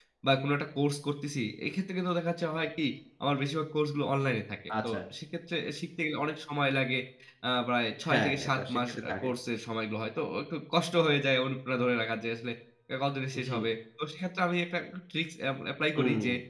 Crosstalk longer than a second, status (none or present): present